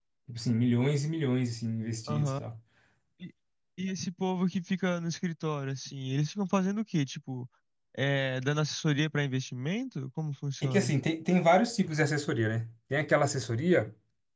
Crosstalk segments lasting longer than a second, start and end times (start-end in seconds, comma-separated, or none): none